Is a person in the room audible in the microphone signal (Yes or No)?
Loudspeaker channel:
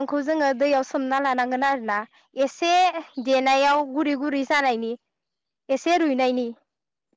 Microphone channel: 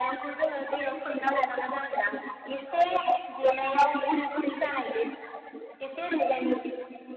No